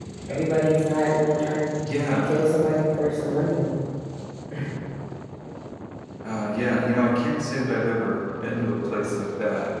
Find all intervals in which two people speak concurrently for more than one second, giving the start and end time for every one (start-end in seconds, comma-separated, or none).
none